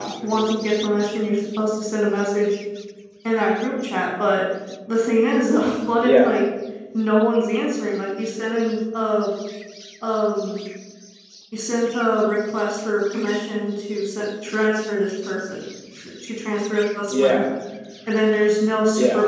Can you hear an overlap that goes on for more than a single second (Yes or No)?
No